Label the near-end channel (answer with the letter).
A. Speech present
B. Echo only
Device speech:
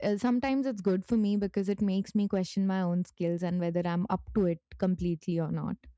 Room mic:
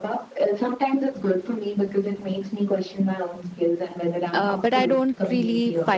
A